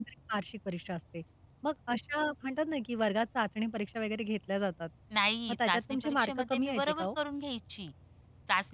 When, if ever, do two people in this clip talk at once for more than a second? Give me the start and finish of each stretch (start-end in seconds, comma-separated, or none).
5.5-7.1